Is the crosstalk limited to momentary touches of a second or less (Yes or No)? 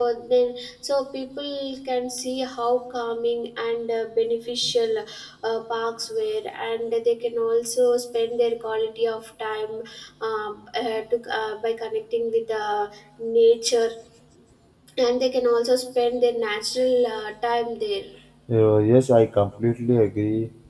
Yes